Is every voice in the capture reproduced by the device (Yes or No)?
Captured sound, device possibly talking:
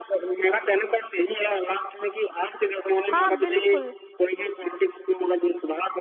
No